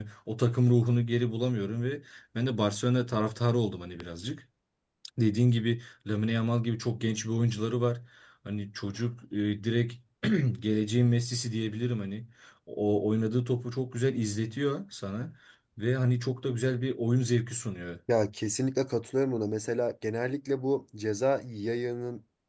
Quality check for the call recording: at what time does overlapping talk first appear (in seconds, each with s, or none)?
none